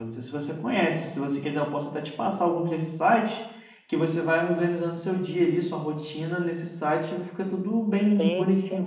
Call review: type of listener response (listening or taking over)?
taking over